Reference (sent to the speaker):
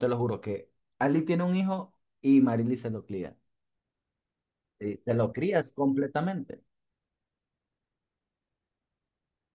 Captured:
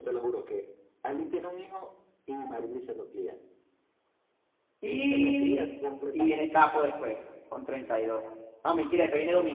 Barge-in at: 4.8 s

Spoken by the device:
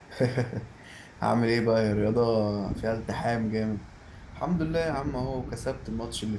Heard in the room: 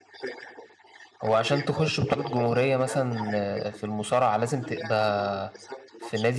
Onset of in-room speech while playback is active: 1.2 s

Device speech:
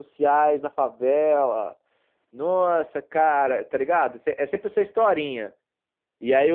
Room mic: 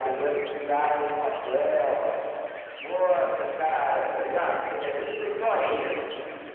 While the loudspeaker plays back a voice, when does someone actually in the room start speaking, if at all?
none

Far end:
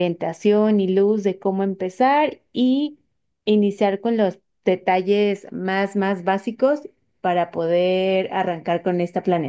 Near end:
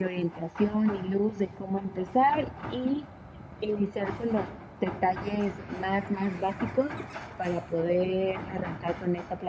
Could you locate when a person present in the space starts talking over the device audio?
none

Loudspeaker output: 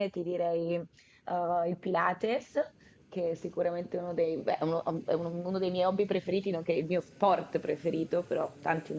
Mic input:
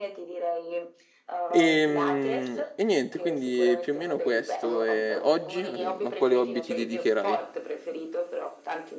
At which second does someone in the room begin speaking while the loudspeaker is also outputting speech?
1.5 s

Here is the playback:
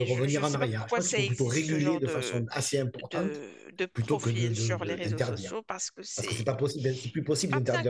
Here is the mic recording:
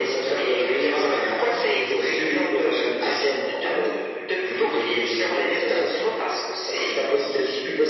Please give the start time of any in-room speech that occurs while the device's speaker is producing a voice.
none

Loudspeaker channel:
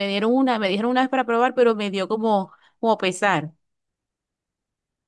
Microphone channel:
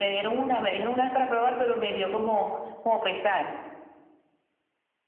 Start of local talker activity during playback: none

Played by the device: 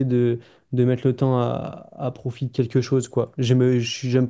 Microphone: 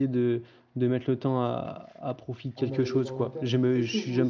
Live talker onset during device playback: 2.6 s

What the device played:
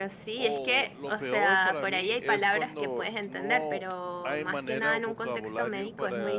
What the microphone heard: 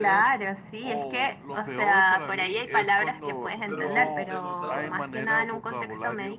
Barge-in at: 3.6 s

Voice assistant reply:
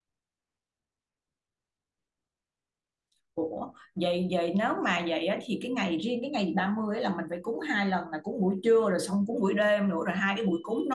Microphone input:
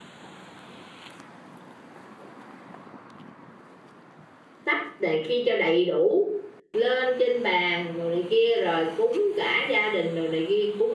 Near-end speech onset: 4.6 s

